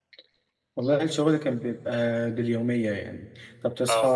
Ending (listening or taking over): listening